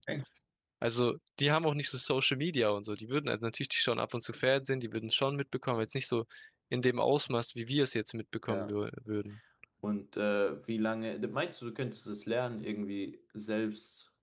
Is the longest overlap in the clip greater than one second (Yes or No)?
No